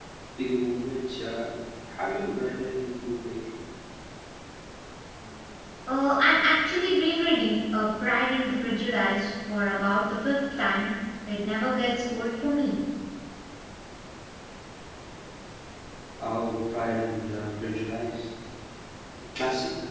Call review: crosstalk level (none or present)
none